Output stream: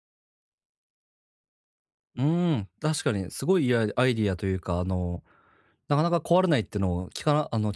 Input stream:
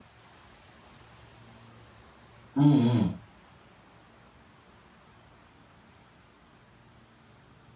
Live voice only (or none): うんうん。